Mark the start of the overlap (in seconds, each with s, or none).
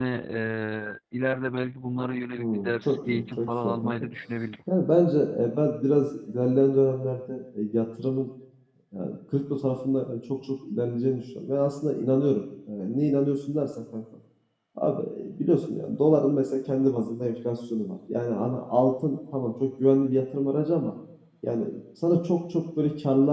2.4 s